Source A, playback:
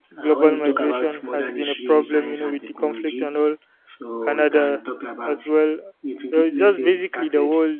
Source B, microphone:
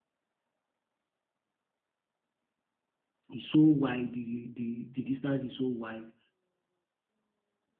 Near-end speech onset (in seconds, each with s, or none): 3.3 s